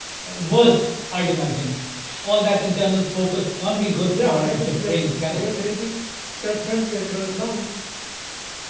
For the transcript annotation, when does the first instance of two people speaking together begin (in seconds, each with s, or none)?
4.1 s